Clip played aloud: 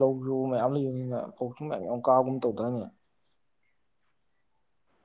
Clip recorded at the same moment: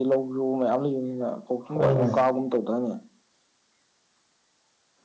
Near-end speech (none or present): present